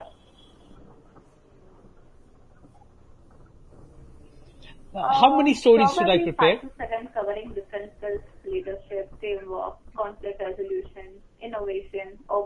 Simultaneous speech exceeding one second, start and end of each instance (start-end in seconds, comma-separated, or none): 5.0-6.6